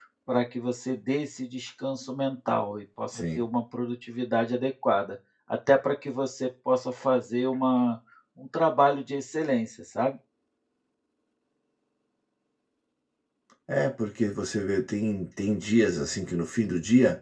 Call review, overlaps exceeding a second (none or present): none